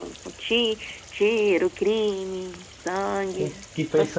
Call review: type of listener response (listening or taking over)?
taking over